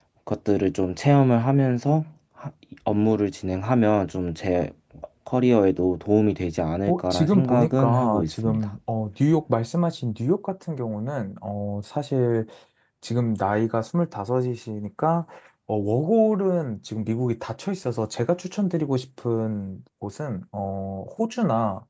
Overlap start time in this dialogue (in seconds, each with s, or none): 6.9 s